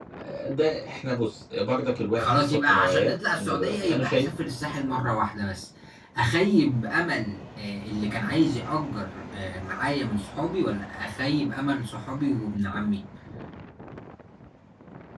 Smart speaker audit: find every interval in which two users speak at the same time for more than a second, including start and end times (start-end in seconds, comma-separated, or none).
2.2-4.3